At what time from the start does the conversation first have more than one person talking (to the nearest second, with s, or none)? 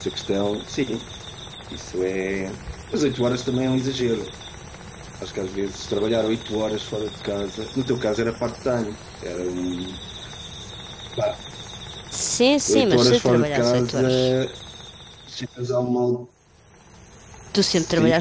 13 s